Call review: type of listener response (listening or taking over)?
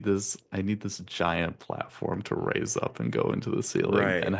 listening